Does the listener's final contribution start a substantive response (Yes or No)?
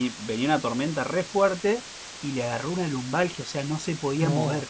No